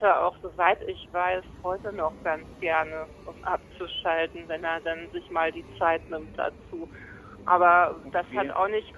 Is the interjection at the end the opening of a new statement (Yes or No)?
No